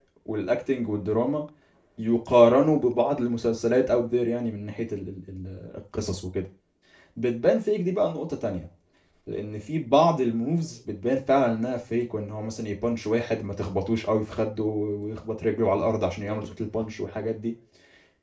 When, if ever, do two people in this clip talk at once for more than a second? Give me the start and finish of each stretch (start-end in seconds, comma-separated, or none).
none